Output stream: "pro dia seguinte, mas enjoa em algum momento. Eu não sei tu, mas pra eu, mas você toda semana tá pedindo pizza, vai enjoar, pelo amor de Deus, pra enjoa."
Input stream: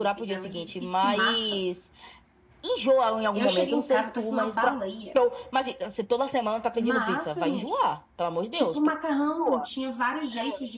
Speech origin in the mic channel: both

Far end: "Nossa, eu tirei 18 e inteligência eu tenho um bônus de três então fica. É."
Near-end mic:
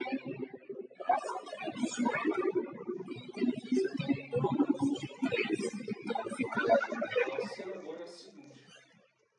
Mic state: both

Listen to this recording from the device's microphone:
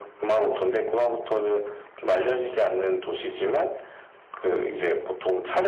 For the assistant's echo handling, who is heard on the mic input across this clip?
echo only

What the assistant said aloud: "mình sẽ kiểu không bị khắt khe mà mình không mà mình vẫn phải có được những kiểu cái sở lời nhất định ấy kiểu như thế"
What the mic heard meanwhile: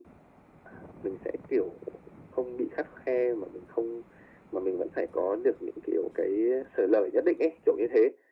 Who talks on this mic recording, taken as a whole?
echo only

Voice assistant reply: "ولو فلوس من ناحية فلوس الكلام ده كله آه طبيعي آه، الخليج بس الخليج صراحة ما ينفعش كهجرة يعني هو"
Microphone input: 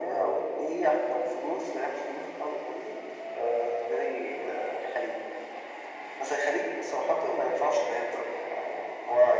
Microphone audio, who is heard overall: echo only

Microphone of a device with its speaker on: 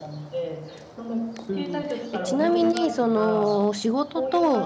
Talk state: both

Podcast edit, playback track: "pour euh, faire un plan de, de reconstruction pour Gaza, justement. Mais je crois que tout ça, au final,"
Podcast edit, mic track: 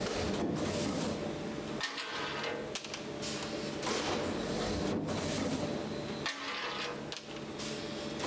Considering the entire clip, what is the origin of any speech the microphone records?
neither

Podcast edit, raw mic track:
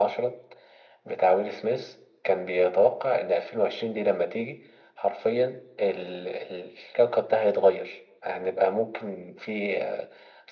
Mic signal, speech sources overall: echo only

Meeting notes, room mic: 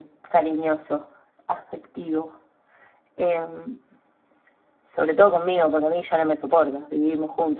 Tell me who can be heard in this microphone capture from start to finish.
echo only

